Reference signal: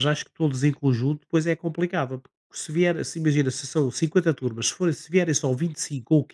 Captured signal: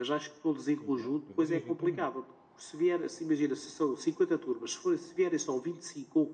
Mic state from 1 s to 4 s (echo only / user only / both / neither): both